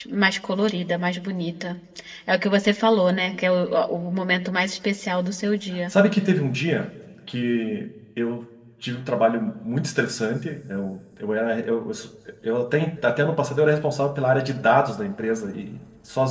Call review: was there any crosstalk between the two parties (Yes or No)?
No